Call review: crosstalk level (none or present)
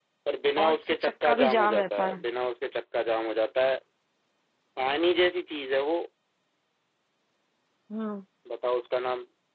present